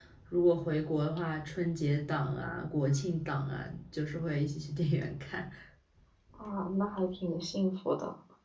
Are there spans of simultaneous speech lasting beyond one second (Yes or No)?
No